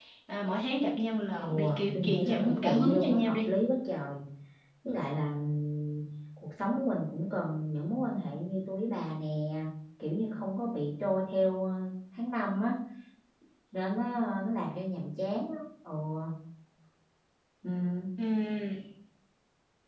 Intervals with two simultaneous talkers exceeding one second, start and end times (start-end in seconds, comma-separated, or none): 1.4-3.5